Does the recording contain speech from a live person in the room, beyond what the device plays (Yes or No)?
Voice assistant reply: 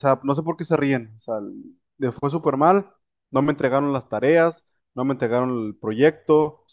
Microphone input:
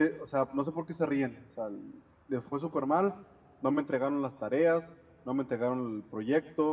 No